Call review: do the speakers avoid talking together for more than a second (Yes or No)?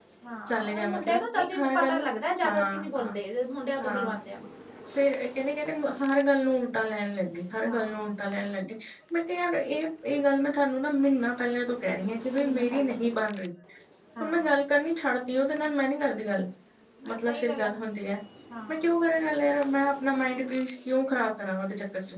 No